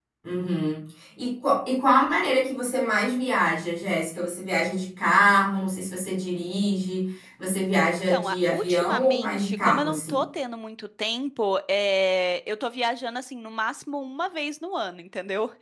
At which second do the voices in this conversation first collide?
8.1 s

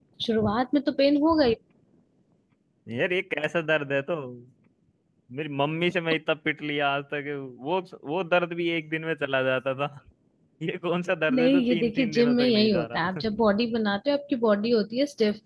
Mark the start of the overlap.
11.3 s

